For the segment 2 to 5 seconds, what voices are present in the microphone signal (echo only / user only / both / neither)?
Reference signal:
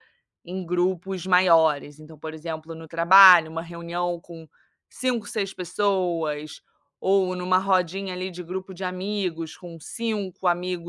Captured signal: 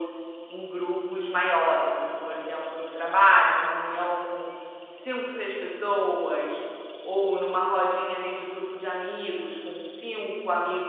echo only